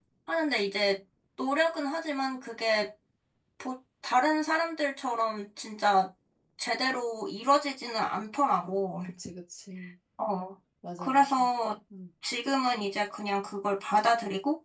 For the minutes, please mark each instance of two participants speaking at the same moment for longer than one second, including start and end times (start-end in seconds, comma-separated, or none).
none